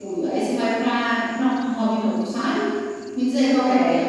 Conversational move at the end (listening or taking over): listening